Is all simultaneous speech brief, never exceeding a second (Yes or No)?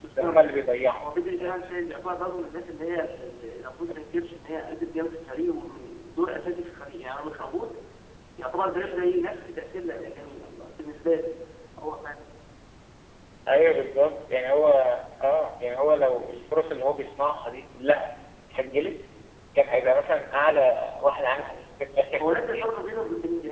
Yes